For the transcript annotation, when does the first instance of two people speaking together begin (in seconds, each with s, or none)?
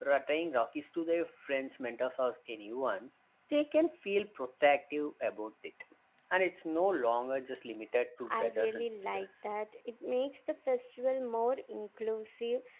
8.2 s